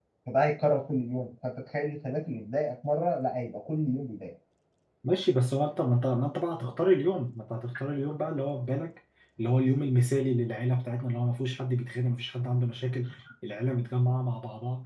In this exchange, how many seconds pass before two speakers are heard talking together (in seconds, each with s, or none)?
none